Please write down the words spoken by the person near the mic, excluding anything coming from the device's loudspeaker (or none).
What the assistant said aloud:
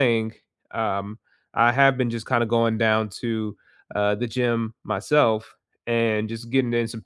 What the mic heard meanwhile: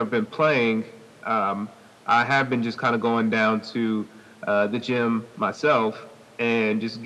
none